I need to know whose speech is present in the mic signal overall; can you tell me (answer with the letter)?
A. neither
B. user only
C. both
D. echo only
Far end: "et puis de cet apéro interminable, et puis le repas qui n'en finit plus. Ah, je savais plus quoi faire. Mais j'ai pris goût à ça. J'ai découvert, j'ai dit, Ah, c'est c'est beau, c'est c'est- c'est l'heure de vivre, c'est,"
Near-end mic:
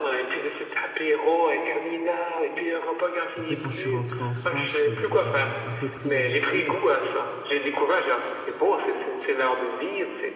C